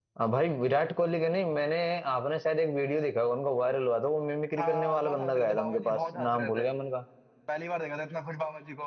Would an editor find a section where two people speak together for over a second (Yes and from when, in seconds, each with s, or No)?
Yes, from 4.6 s